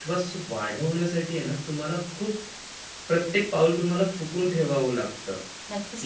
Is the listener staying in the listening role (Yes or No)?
No